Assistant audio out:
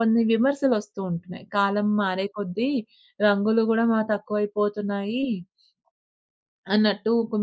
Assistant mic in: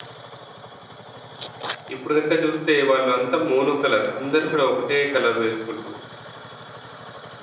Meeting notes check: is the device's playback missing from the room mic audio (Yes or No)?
Yes